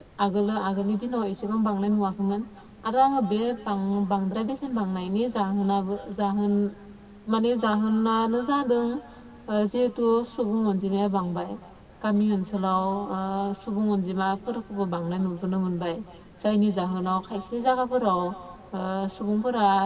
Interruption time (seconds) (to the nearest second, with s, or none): none